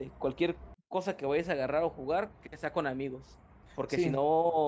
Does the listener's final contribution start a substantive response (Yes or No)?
No